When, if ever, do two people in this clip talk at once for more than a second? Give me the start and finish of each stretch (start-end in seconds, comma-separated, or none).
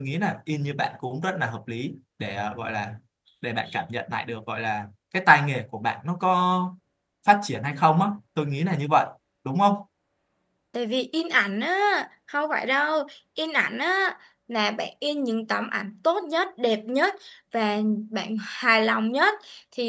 none